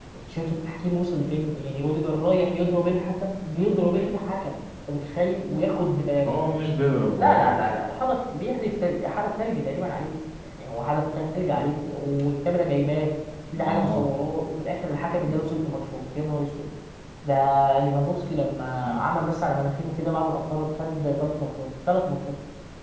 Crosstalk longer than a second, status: none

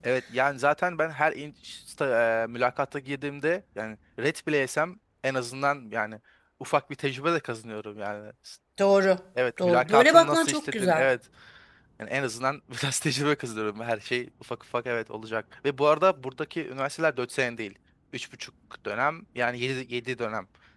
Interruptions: present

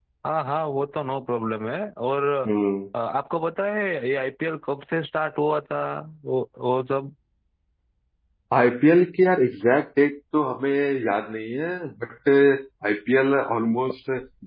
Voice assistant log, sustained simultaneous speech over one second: none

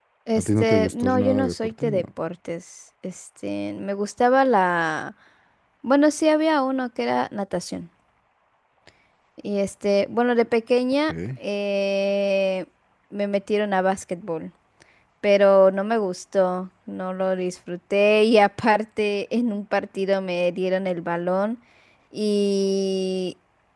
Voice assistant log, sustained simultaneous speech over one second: present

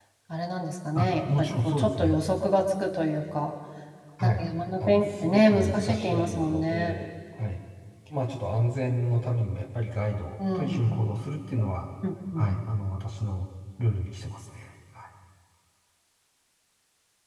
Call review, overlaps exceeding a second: present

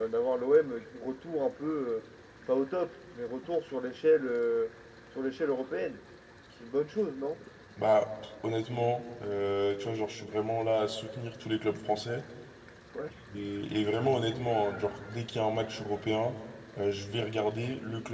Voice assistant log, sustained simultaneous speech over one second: none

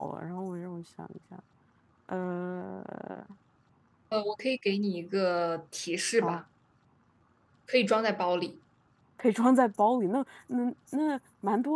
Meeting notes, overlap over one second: none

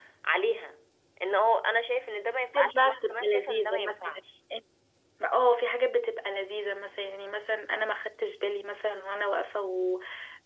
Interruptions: present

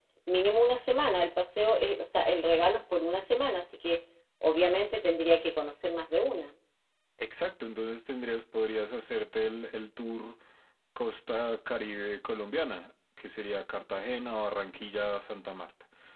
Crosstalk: none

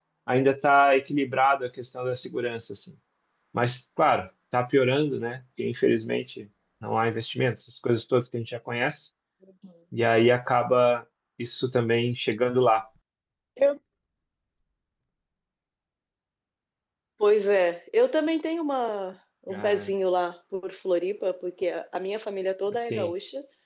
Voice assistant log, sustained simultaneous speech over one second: none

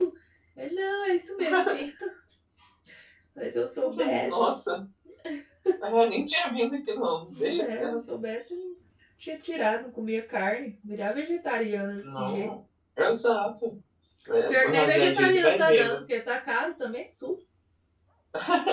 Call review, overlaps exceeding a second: present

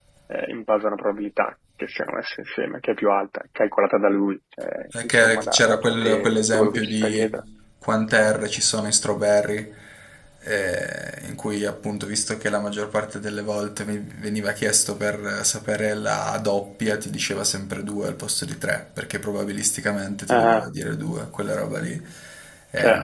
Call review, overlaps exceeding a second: present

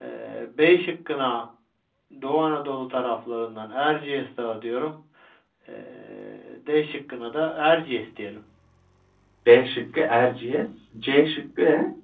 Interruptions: none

